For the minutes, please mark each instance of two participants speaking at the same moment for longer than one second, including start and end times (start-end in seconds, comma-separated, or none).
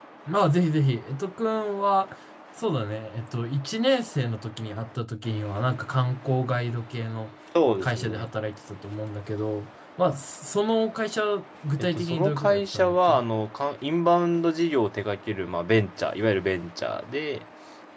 11.8-13.2